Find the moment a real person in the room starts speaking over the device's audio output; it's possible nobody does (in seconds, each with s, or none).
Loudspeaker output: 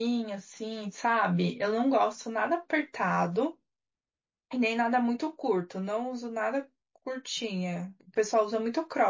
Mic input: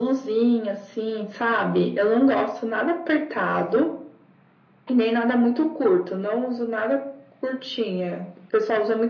none